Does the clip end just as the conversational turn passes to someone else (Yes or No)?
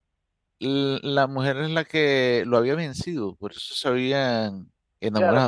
Yes